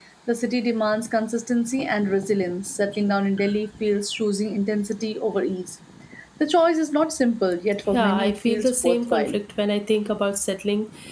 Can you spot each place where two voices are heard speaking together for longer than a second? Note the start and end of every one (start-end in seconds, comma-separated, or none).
7.9-9.4